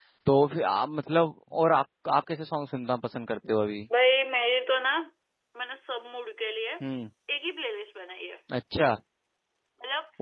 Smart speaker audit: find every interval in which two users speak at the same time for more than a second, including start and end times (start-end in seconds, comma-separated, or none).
none